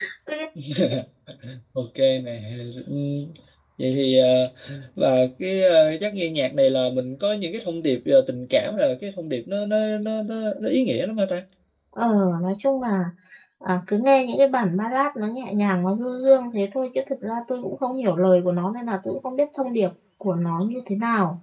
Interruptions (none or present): none